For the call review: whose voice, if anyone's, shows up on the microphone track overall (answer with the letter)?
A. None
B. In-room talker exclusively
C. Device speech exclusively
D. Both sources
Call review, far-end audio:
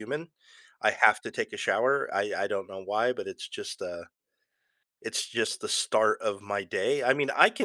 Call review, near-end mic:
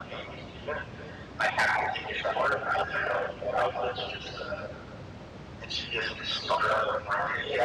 C